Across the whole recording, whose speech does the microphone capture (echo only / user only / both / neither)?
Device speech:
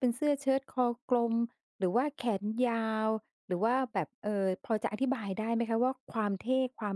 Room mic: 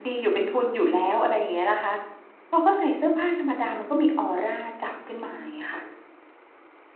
user only